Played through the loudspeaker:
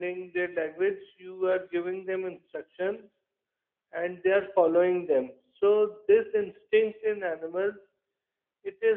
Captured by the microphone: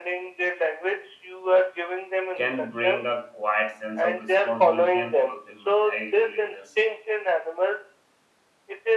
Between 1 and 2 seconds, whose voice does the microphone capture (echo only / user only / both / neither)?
echo only